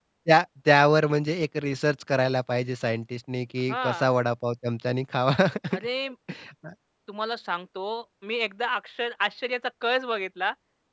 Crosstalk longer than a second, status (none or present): none